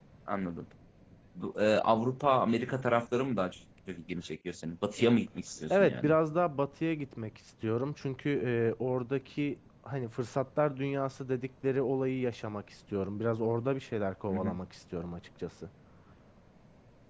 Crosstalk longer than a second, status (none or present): none